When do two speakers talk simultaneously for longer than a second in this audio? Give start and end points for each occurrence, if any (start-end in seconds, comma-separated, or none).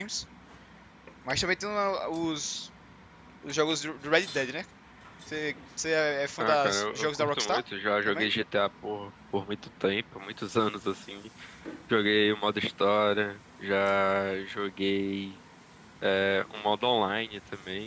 6.4-7.6